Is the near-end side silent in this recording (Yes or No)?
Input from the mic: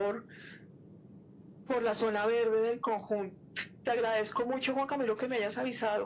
Yes